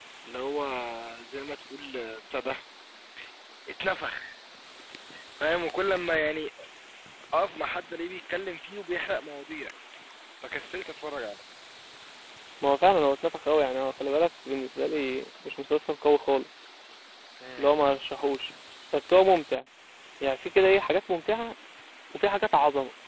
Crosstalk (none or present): none